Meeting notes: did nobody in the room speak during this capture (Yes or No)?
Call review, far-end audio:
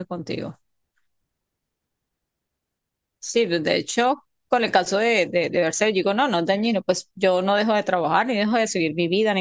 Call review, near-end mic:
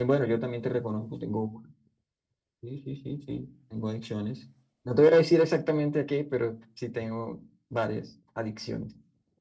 No